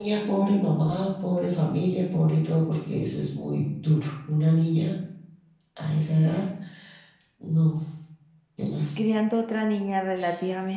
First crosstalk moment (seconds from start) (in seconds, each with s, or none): none